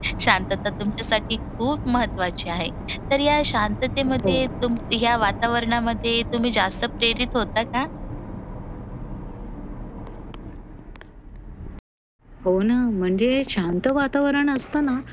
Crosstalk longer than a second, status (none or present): none